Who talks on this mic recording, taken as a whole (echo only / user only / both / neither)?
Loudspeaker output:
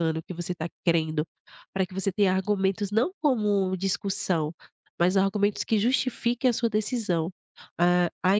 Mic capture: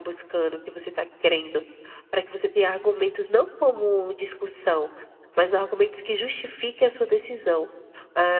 echo only